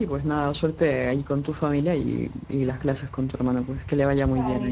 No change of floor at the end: No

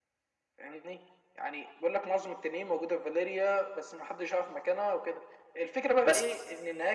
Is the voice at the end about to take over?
No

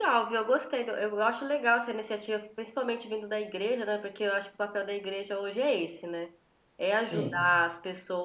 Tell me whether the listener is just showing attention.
Yes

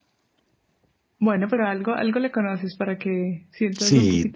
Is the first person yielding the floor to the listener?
Yes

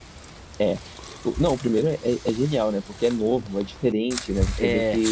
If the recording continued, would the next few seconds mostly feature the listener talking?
No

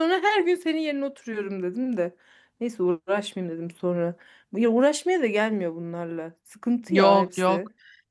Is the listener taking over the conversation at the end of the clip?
Yes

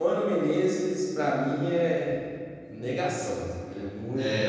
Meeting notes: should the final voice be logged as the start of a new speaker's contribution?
Yes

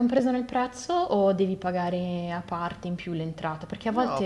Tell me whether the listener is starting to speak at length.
Yes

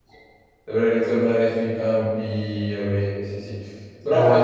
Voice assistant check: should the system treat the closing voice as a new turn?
No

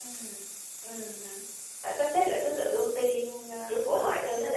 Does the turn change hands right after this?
Yes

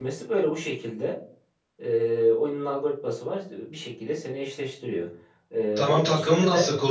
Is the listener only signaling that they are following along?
No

